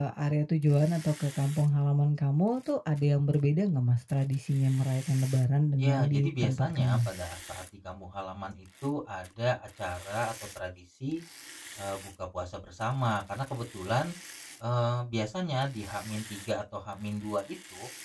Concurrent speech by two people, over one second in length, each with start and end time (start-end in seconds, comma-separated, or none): 5.8-7.0